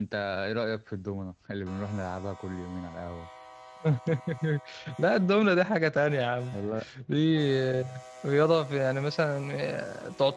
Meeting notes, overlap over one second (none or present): none